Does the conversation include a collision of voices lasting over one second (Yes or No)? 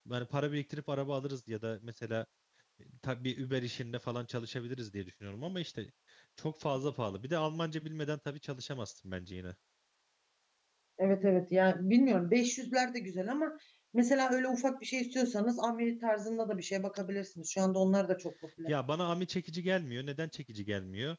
No